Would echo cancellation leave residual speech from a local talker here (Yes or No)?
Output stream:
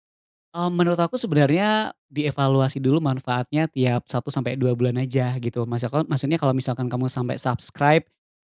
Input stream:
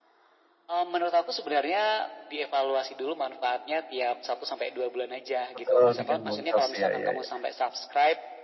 Yes